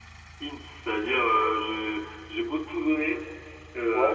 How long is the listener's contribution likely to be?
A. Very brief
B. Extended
A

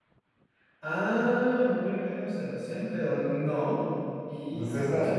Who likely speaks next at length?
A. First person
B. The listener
A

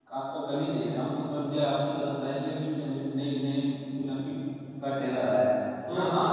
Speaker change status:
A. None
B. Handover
A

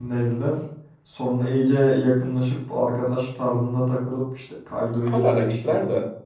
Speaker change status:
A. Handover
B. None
A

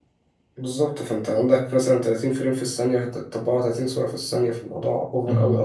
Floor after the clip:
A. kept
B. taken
B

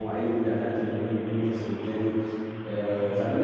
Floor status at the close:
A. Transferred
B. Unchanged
B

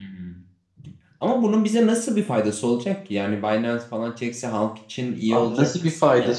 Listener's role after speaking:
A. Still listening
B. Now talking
B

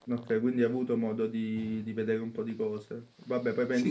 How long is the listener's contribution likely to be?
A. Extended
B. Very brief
B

